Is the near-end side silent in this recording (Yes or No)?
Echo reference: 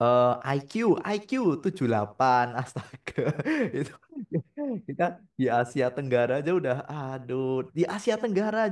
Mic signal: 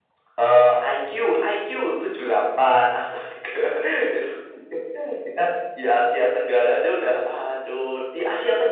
Yes